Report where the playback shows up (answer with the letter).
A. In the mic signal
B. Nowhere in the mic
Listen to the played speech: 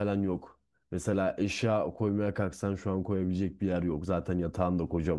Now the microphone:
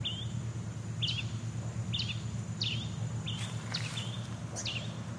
B